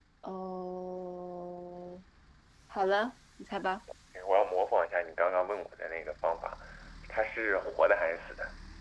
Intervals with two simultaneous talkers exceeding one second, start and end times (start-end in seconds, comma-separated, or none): none